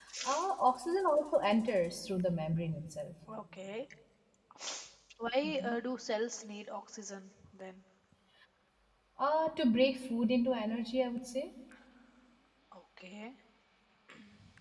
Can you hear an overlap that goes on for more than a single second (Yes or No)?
No